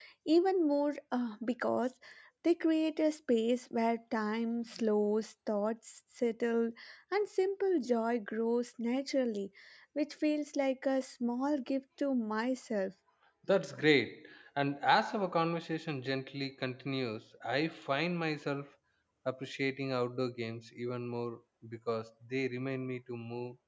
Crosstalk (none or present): none